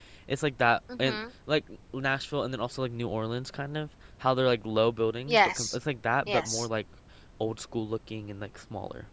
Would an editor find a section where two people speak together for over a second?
No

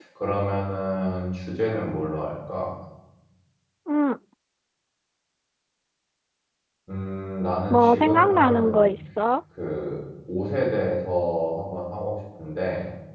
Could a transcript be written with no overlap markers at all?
No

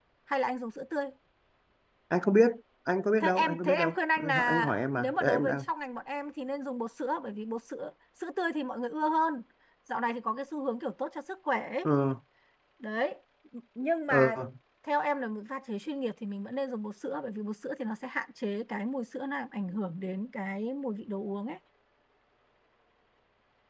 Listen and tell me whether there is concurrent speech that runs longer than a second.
Yes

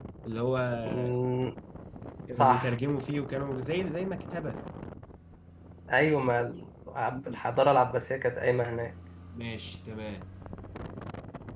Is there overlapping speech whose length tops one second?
No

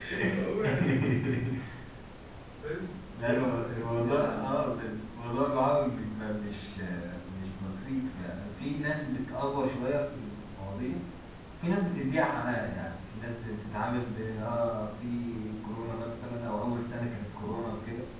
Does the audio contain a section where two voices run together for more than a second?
Yes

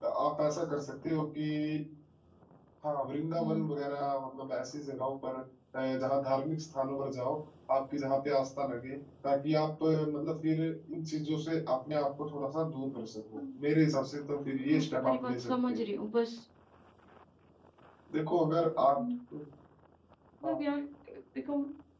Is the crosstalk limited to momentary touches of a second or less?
No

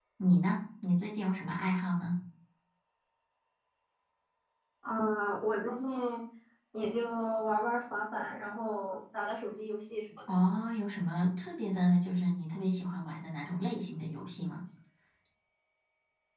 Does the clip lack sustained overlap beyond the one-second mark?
Yes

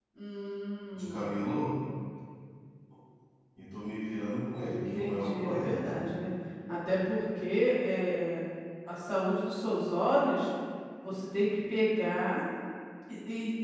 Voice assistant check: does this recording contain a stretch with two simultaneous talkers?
Yes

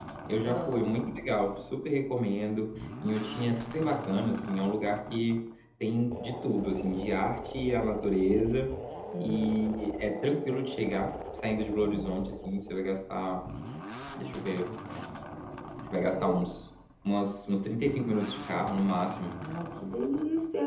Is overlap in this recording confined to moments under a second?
Yes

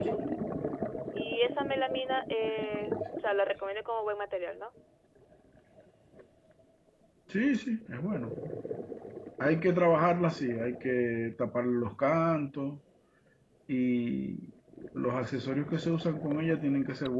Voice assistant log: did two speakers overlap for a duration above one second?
No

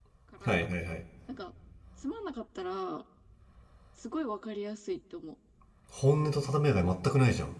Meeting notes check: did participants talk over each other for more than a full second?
No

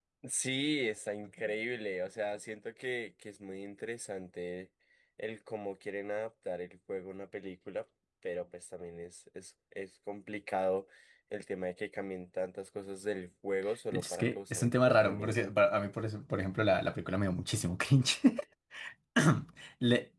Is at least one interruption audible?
Yes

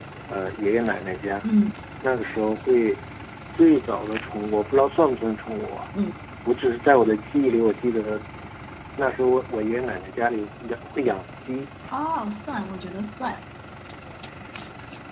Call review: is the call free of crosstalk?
Yes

